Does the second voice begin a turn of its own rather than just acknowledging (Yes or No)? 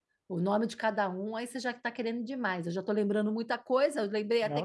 Yes